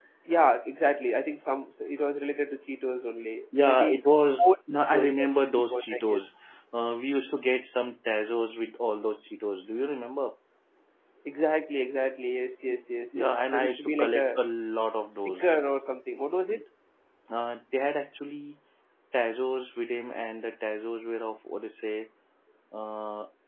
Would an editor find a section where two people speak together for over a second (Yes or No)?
Yes